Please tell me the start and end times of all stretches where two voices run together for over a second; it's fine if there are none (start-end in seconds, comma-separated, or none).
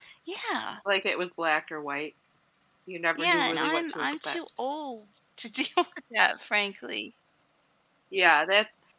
3.2-4.4